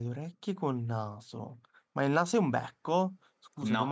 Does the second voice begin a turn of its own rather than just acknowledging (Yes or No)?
No